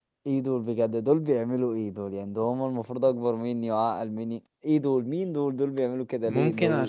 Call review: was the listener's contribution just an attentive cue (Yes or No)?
No